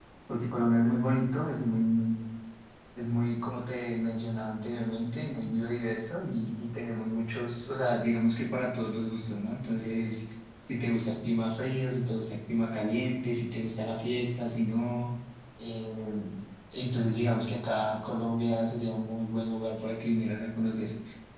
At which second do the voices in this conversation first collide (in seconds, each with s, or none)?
none